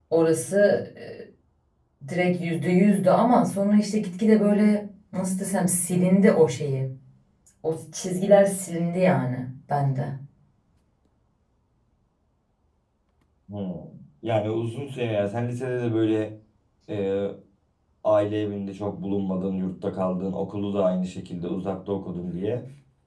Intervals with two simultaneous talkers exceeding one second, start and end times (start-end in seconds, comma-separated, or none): none